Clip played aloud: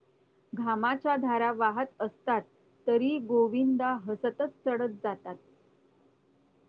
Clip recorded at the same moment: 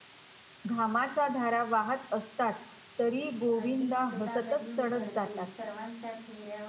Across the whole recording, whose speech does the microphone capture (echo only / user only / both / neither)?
both